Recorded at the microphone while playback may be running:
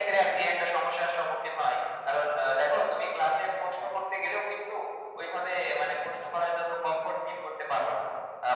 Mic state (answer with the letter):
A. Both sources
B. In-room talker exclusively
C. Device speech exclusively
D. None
C